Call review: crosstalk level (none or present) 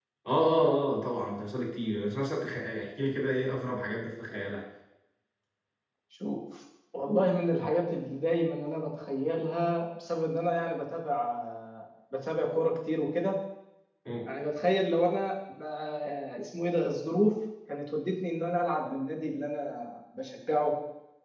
none